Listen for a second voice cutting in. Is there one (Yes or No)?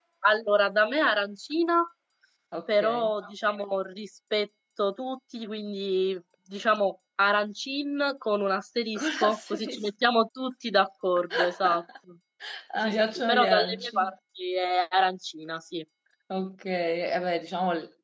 Yes